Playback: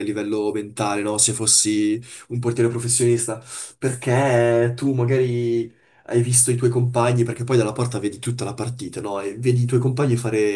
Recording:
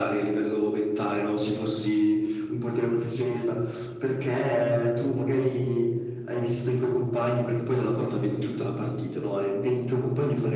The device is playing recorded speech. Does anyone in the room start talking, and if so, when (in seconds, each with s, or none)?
none